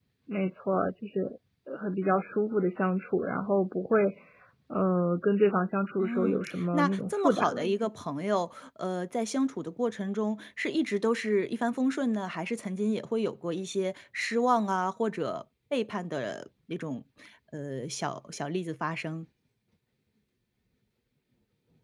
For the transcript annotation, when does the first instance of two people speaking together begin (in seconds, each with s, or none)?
6.0 s